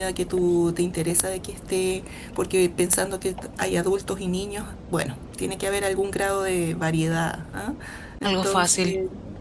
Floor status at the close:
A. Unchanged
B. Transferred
A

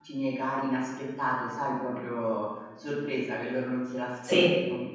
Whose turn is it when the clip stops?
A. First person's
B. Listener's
A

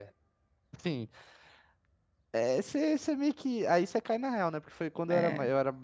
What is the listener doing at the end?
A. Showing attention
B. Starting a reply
A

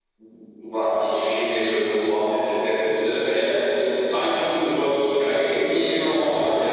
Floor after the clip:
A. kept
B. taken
B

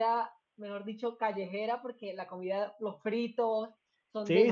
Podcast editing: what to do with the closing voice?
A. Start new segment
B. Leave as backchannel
A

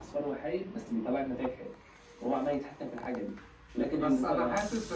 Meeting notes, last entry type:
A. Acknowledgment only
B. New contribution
B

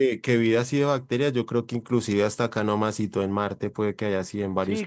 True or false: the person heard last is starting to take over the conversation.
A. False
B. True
B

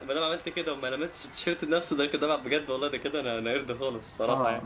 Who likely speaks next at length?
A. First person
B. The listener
B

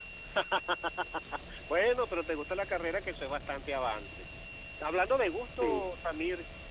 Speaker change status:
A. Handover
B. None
B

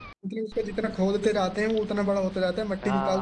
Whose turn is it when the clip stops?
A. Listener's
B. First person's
A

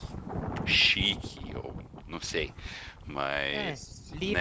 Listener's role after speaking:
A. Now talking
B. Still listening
A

